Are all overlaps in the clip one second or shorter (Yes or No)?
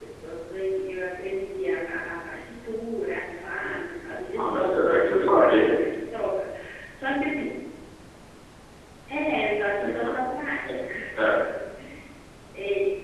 No